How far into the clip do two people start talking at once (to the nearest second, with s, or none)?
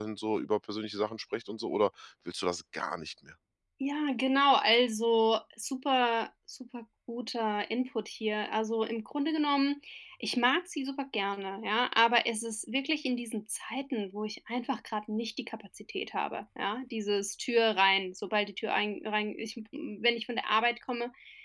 none